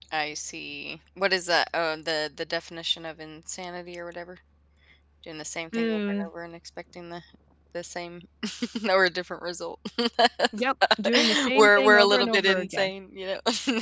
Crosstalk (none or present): present